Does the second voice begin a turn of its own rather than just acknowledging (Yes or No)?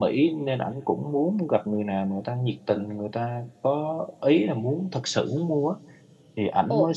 No